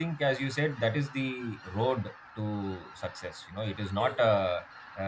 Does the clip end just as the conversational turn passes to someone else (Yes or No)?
No